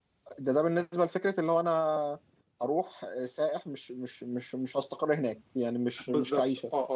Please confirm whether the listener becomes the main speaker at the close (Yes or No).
Yes